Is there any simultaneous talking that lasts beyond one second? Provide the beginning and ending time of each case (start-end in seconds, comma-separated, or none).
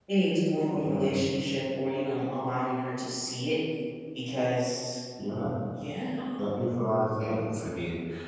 none